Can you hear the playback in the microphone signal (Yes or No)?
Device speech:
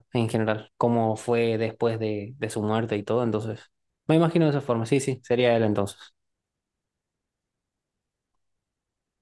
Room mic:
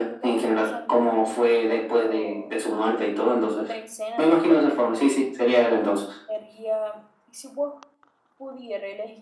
Yes